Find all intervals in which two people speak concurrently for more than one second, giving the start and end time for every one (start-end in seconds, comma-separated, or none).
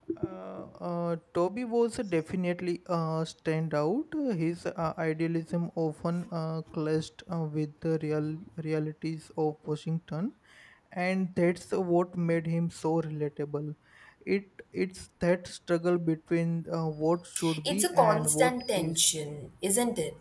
17.6-18.9